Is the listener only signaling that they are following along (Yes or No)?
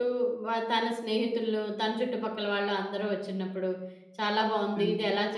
Yes